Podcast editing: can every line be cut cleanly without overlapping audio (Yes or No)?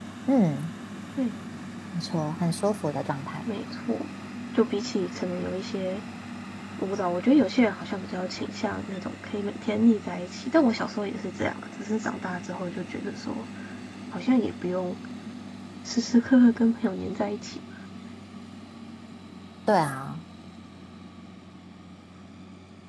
Yes